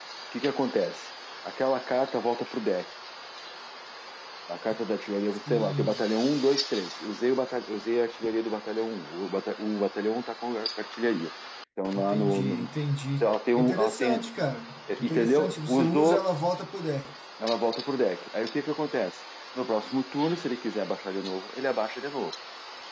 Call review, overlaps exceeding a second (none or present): present